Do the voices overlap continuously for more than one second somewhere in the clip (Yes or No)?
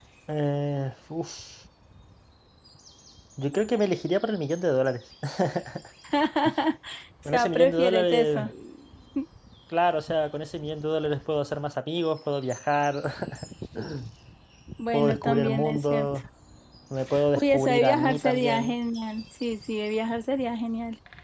Yes